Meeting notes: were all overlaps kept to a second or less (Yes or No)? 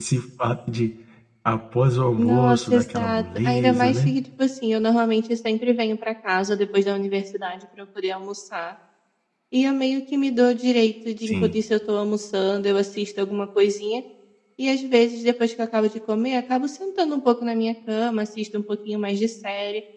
No